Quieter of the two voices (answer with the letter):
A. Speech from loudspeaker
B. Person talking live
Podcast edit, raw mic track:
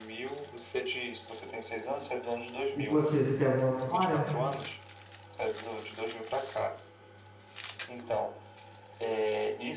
A